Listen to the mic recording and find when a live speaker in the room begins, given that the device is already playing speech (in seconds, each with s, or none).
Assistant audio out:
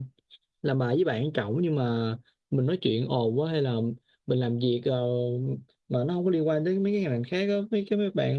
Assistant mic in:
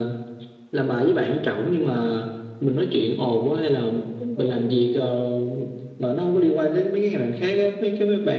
4.2 s